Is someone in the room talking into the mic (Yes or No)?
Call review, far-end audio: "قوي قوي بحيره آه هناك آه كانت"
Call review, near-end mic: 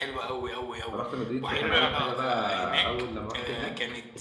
Yes